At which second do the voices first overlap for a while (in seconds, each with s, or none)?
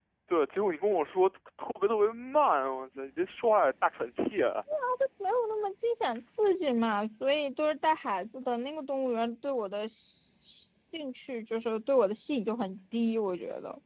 none